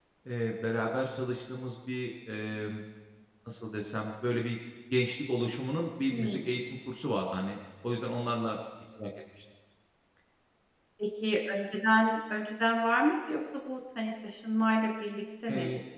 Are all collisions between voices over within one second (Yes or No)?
Yes